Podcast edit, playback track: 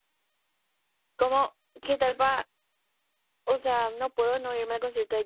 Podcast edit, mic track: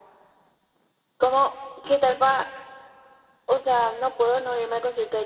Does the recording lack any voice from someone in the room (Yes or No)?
Yes